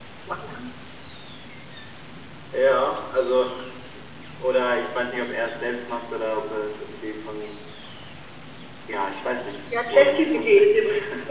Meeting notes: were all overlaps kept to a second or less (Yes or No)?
No